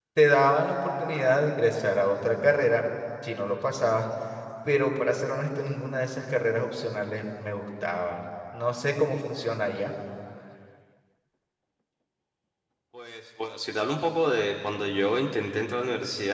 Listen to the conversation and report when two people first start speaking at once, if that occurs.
none

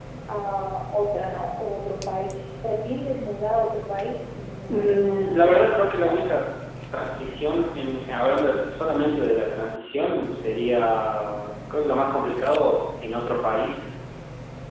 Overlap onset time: 4.7 s

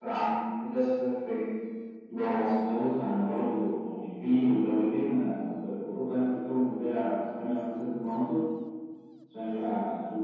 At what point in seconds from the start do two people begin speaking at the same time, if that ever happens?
none

